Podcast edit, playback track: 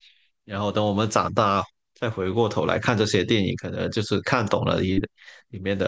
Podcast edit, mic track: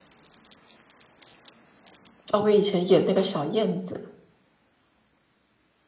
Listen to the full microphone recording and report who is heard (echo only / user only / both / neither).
user only